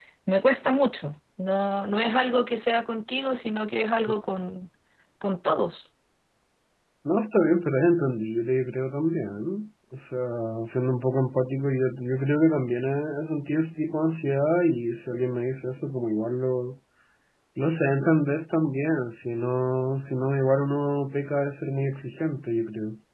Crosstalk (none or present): none